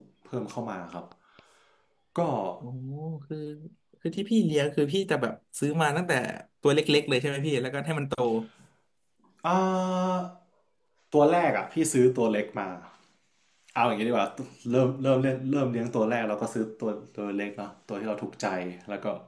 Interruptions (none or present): none